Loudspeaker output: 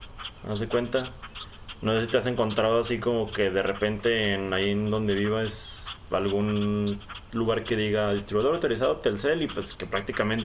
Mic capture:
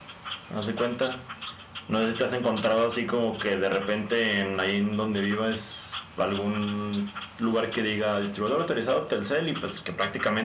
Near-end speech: none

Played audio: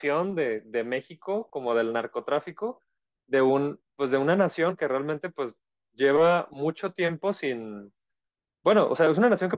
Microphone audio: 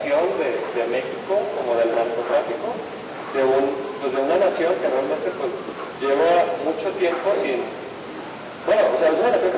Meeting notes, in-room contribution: none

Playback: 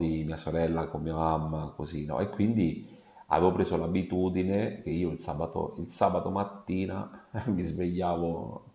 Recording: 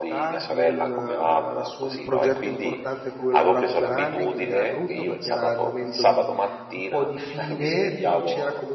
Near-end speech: present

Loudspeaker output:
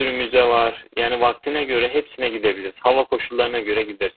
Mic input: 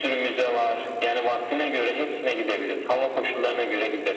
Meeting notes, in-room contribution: none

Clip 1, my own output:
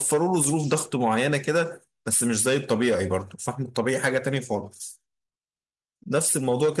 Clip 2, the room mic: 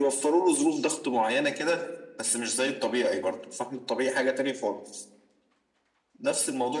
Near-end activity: none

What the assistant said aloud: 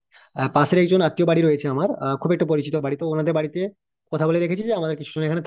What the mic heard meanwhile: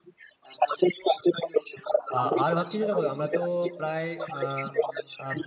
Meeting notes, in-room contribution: present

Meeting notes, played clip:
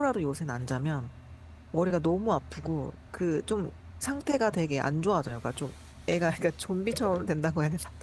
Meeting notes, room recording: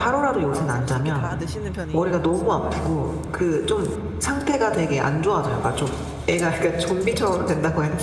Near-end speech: present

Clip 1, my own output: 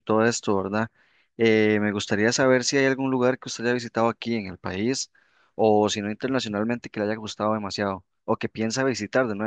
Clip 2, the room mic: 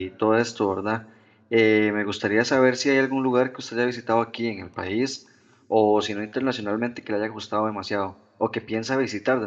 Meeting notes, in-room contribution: none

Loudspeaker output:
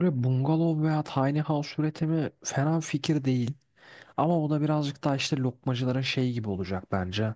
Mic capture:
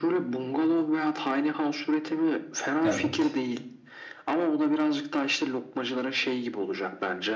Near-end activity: present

